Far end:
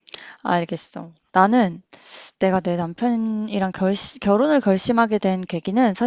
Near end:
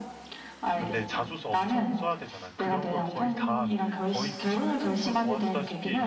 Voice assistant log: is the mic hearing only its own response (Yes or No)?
No